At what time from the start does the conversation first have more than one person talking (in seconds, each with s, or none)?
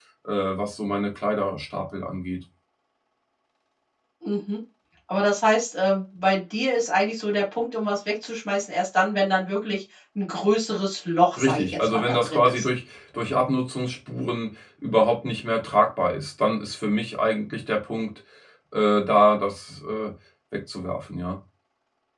11.4 s